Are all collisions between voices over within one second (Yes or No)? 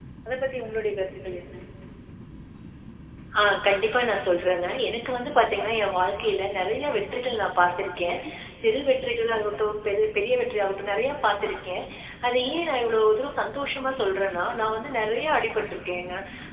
Yes